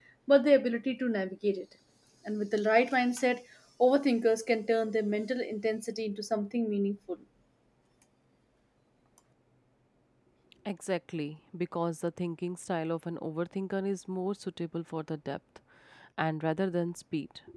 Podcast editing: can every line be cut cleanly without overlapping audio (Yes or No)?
Yes